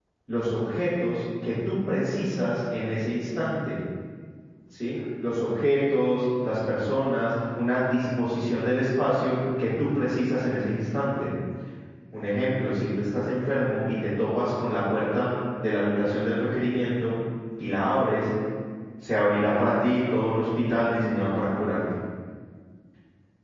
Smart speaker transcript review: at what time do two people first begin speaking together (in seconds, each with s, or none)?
none